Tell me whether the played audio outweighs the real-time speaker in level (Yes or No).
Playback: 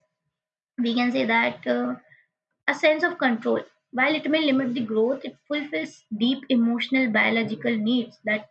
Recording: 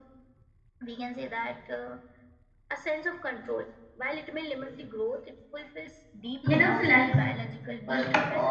No